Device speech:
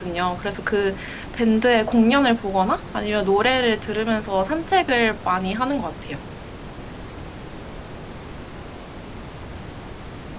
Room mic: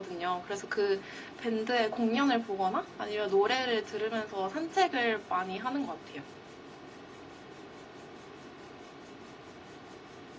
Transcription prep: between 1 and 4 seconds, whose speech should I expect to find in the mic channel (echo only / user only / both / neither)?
echo only